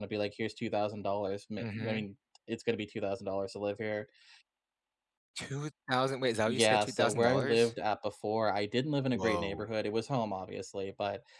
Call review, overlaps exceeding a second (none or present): present